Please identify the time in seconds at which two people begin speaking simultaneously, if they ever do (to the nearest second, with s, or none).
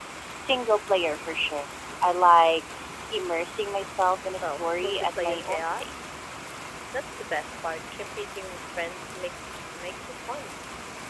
4 s